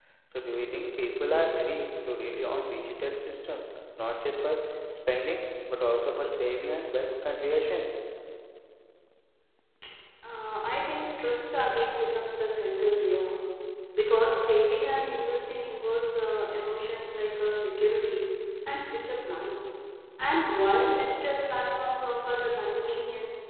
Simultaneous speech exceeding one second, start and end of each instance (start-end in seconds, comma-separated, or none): none